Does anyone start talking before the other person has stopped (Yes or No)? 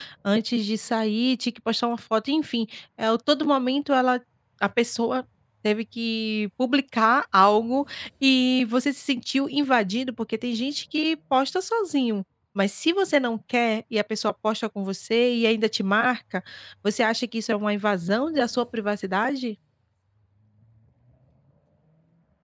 No